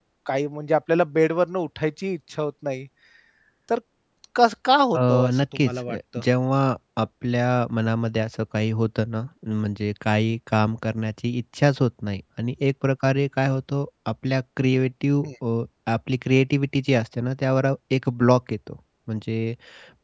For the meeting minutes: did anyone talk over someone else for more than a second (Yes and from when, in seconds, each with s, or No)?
Yes, from 5.0 s